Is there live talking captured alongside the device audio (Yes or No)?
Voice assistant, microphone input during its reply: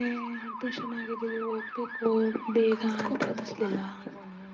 Yes